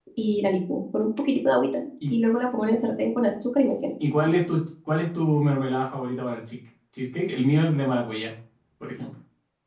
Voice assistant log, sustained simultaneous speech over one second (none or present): none